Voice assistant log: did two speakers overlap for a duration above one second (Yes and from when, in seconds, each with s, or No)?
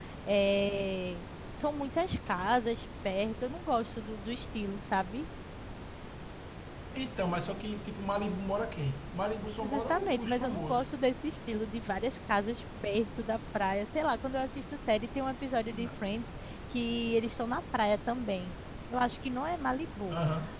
Yes, from 9.7 s